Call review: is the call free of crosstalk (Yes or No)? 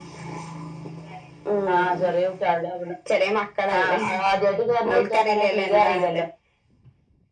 No